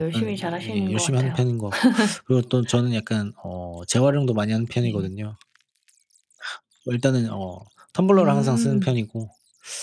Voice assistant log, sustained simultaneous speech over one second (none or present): present